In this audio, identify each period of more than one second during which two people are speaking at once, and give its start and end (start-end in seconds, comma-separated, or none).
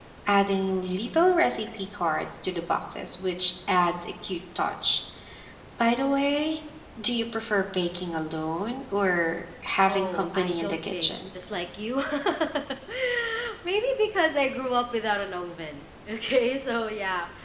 9.9-11.1